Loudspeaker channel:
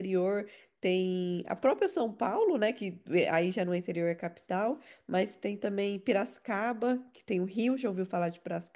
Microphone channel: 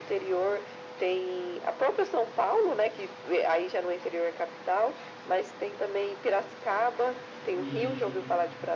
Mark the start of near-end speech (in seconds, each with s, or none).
7.6 s